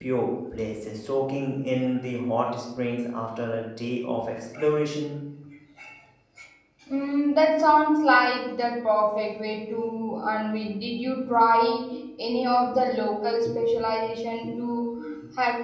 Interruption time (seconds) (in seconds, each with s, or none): none